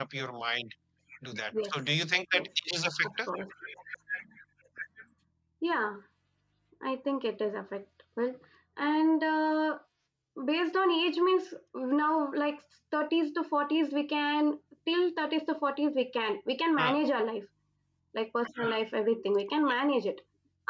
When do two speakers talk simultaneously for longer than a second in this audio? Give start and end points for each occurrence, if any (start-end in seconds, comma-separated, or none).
none